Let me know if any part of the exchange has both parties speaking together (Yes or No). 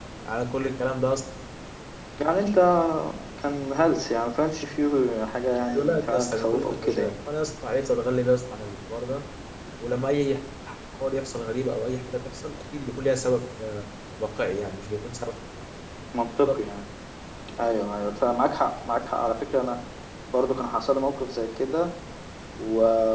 Yes